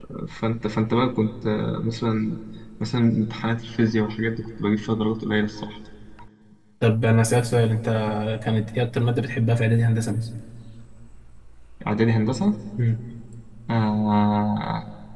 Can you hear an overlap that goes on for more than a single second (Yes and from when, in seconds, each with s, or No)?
No